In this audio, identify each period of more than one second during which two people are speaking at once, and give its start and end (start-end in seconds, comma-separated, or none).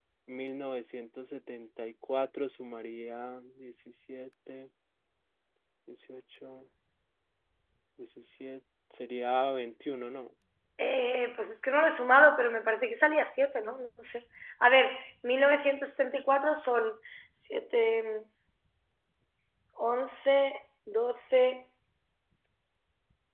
none